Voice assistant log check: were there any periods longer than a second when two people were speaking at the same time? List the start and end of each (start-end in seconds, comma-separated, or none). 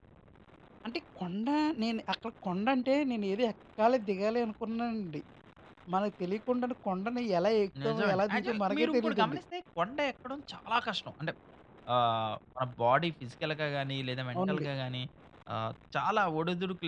7.8-9.4